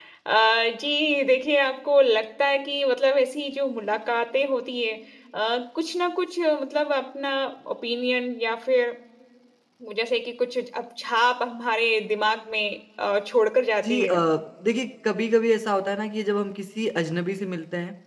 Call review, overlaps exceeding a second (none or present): none